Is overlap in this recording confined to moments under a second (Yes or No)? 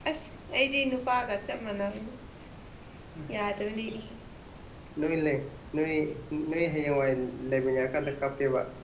Yes